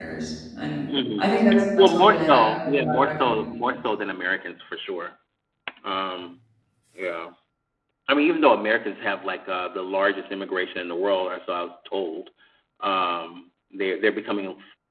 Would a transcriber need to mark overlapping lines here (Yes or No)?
Yes